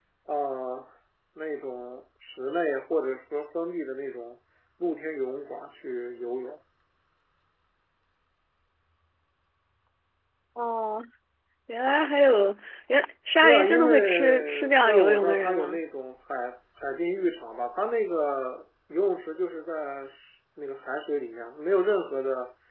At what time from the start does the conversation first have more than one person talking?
13.4 s

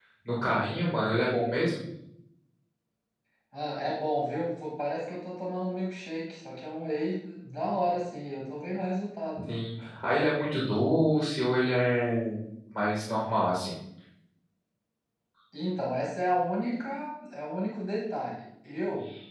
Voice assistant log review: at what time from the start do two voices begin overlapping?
none

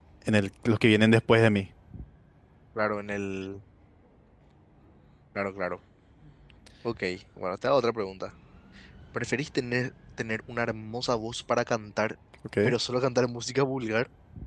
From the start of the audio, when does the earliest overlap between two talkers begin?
none

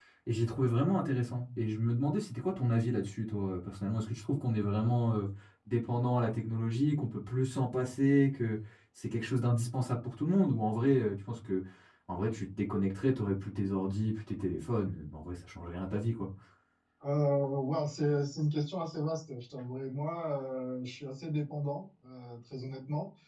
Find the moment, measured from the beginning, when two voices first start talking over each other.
none

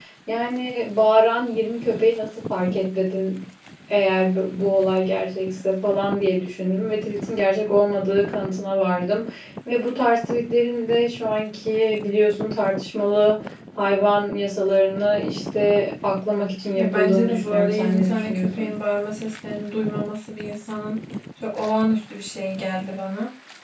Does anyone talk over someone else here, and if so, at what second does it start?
16.8 s

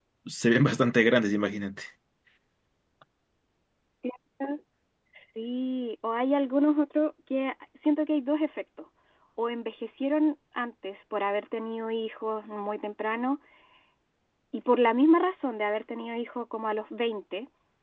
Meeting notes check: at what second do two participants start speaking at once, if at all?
none

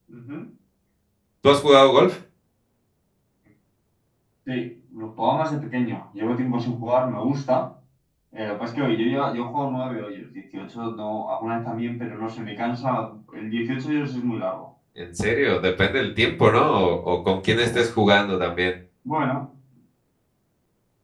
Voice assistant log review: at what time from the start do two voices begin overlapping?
none

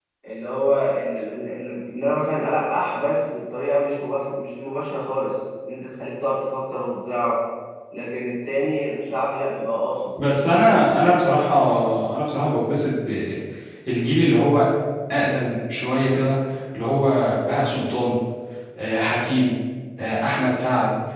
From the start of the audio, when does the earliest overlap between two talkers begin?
none

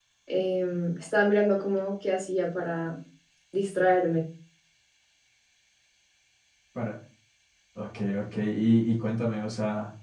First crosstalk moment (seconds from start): none

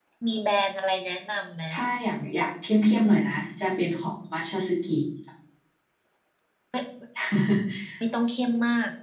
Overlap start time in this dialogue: none

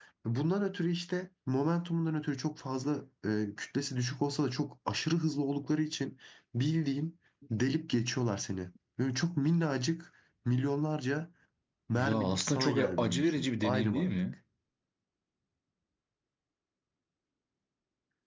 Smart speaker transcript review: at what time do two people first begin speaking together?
12.0 s

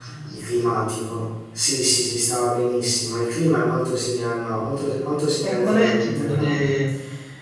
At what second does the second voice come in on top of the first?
5.4 s

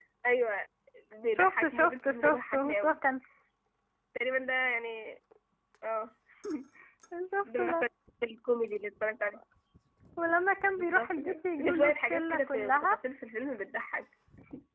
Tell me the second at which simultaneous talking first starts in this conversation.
1.4 s

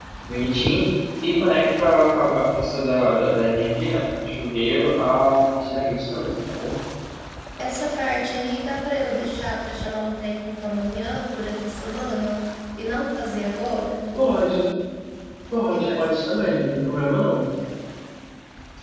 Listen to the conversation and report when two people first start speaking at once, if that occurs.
15.7 s

